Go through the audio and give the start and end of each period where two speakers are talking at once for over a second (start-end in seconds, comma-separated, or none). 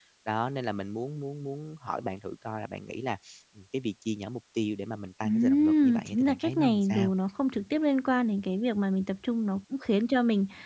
5.2-7.1